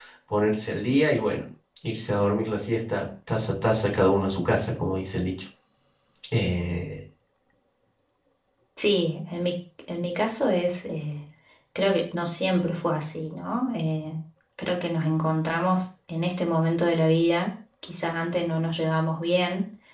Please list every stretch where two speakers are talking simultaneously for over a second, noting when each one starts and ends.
none

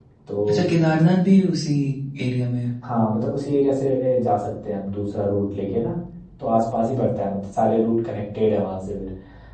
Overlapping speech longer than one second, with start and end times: none

